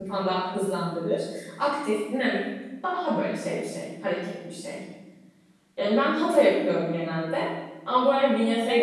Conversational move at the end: taking over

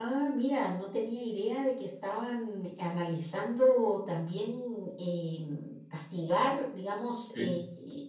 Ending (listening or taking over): listening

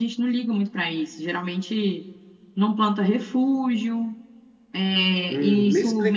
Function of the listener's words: taking over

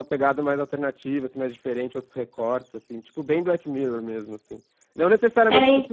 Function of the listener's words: listening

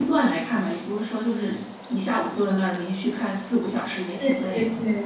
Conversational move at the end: taking over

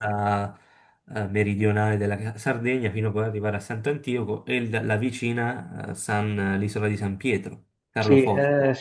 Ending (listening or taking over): taking over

